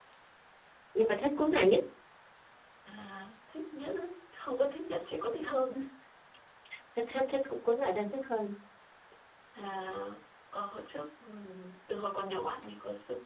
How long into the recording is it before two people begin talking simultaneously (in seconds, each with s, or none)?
none